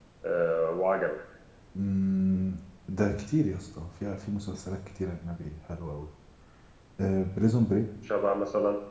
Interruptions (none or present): none